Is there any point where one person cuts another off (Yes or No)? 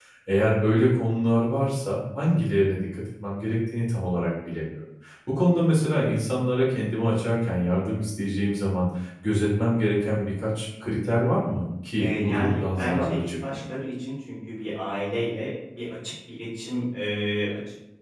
Yes